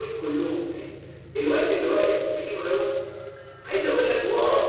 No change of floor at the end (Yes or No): Yes